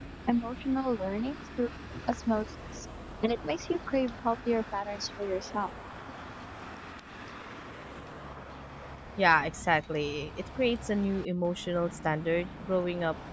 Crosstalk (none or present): none